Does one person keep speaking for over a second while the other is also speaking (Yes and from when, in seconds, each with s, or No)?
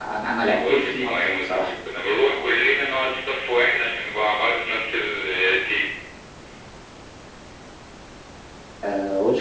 Yes, from 0.5 s